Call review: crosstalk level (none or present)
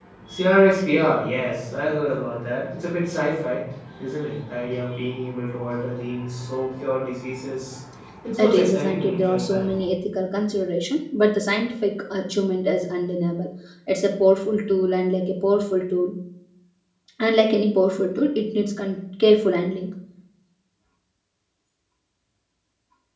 present